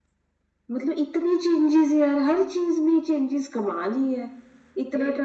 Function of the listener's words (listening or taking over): listening